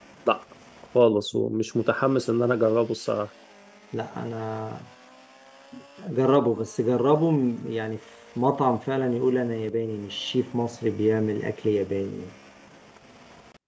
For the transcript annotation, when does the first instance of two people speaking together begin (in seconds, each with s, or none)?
none